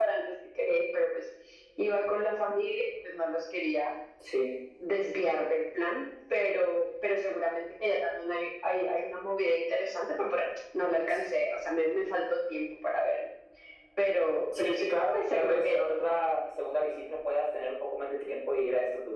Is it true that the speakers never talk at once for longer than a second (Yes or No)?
No